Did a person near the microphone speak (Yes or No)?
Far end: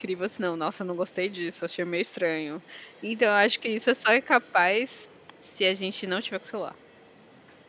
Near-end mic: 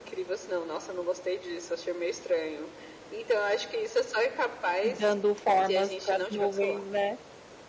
Yes